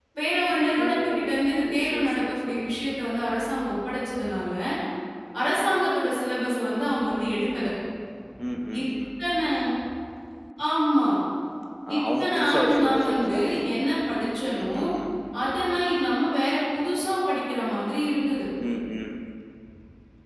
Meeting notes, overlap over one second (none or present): present